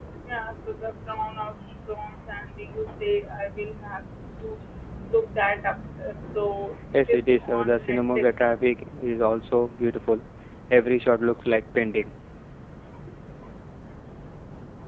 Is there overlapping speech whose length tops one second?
Yes, from 6.9 s

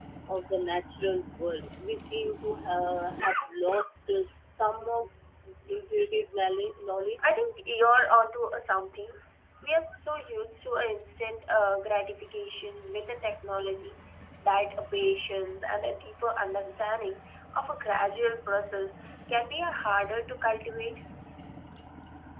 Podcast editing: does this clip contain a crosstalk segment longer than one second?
No

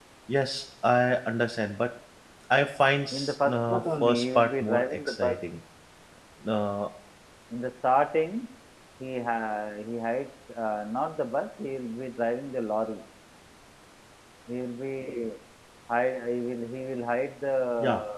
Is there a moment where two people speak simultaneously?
Yes, from 3.1 s

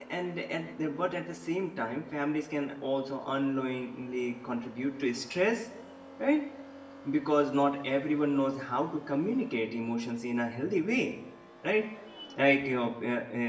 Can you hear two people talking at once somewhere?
No

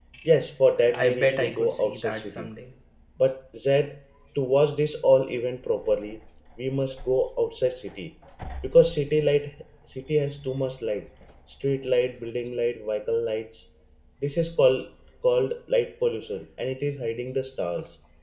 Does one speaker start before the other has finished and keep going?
Yes, from 0.8 s

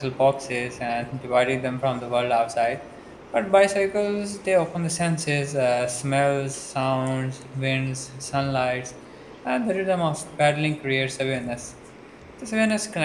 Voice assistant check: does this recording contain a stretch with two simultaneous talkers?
No

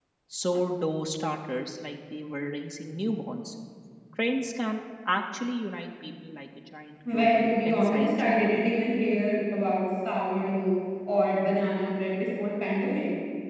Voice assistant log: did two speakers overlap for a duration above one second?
Yes, from 7.0 s

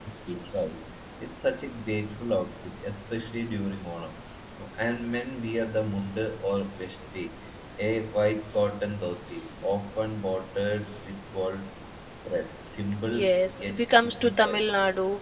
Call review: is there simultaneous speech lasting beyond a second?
Yes, from 13.1 s

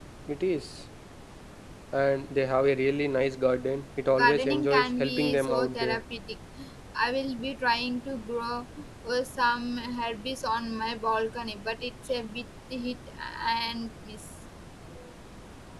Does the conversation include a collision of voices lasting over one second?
Yes, from 4.2 s

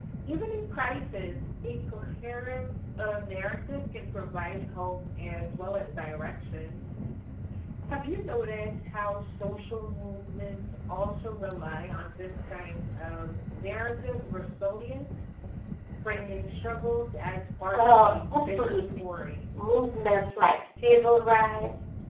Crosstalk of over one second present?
Yes, from 17.7 s

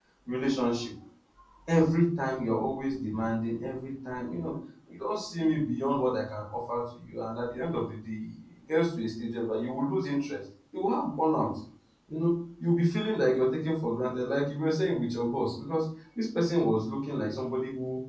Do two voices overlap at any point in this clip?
No

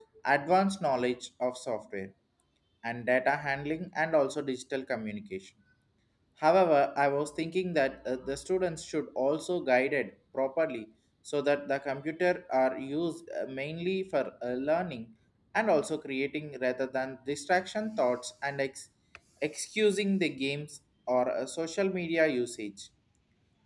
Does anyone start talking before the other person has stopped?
No

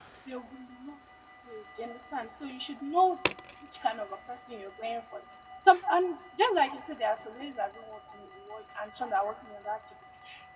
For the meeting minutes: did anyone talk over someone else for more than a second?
No

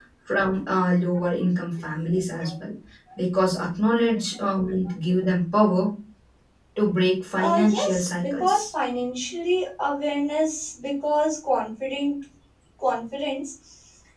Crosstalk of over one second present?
Yes, from 7.4 s

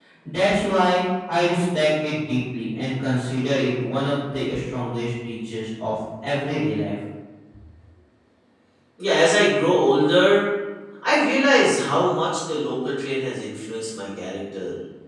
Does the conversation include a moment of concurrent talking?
No

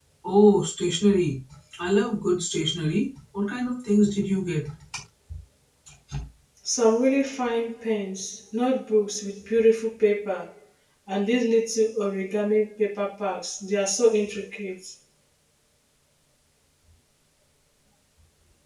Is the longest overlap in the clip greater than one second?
No

